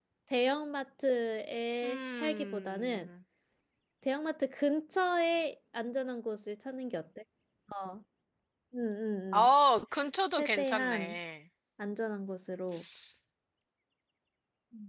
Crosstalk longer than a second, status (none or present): present